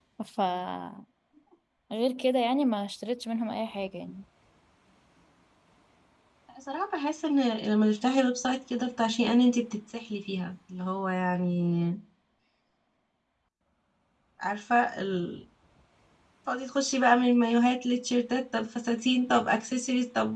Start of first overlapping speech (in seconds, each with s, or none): none